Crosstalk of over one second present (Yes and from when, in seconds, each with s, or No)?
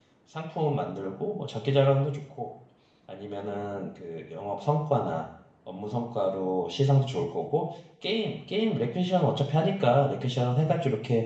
No